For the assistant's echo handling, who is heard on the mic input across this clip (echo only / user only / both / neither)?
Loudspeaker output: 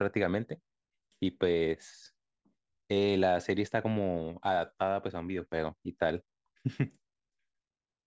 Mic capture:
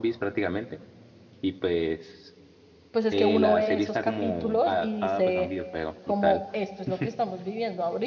both